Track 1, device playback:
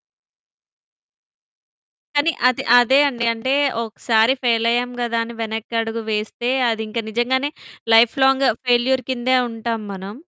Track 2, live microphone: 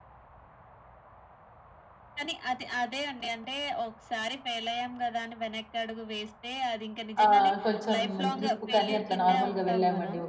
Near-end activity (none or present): present